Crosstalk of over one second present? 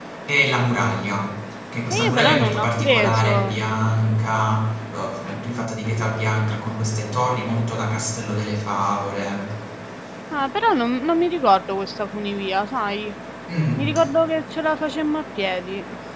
Yes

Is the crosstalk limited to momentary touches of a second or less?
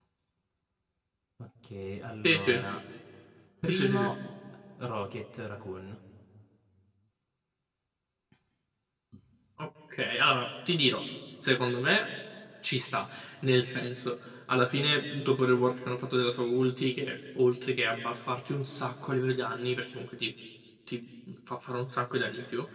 Yes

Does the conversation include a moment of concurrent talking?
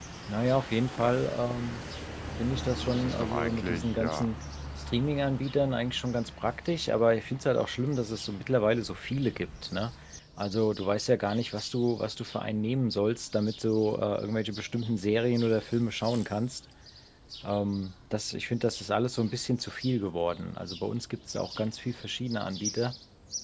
Yes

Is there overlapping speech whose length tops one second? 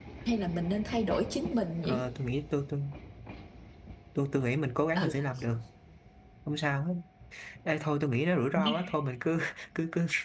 No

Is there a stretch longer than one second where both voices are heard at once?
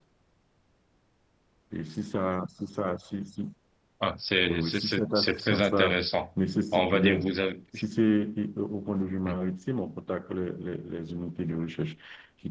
Yes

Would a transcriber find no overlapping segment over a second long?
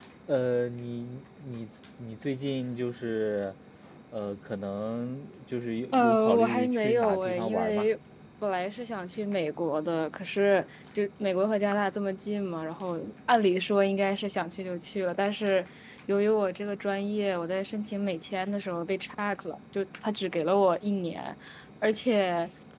No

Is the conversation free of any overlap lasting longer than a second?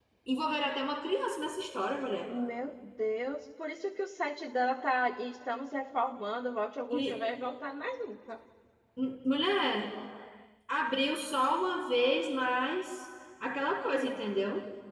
Yes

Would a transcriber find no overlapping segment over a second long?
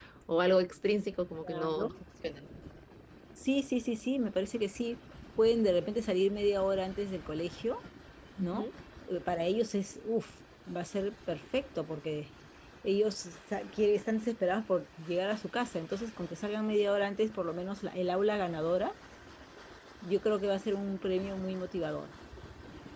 Yes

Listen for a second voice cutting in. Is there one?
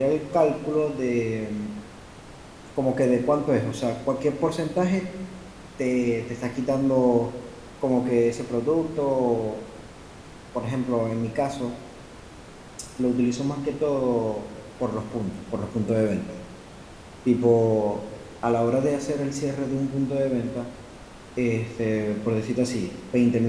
No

